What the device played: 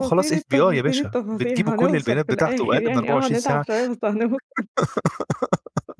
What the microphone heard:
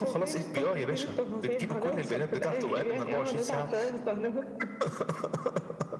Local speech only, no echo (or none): none